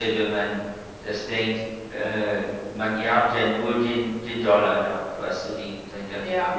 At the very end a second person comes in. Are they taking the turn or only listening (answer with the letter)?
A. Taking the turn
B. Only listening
A